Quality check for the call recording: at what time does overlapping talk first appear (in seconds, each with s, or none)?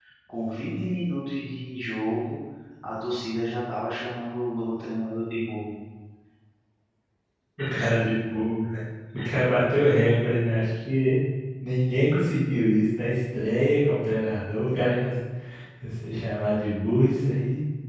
none